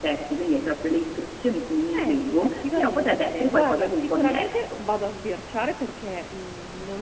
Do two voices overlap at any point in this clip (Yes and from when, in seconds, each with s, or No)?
Yes, from 1.9 s